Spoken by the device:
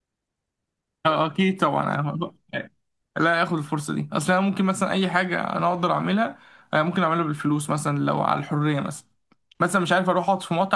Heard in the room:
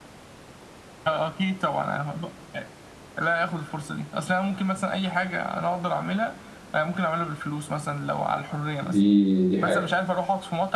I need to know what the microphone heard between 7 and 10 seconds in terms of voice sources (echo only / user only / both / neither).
both